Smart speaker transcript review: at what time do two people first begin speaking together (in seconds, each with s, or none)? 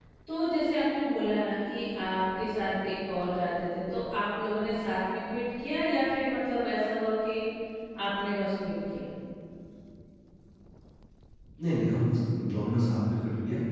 none